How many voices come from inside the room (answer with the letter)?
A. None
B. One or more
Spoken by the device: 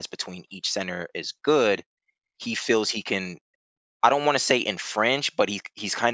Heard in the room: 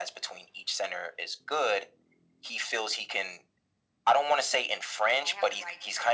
B